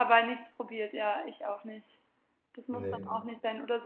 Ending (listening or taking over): listening